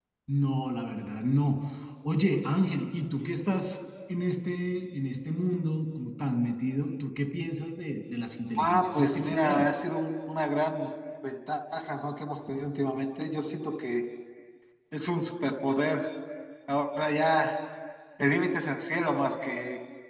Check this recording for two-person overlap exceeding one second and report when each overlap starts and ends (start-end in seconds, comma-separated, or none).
8.6-9.8